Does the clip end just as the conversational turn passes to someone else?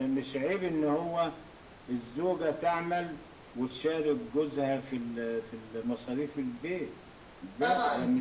Yes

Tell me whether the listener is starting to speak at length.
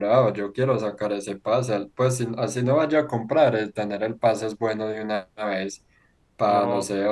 No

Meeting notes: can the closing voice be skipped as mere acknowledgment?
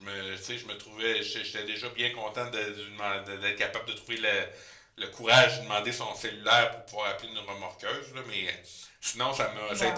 Yes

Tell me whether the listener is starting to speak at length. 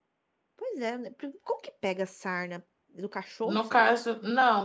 Yes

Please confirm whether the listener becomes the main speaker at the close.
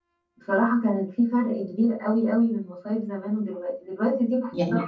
No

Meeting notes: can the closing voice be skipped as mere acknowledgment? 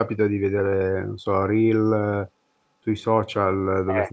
Yes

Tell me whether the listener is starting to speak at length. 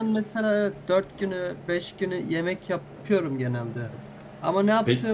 No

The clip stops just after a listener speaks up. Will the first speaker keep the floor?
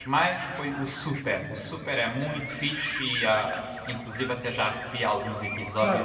No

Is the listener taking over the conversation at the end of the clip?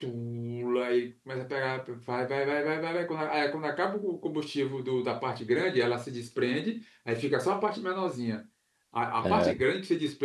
No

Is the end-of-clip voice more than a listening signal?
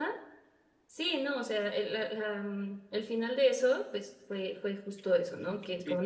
No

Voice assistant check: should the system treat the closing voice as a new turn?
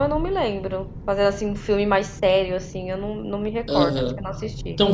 Yes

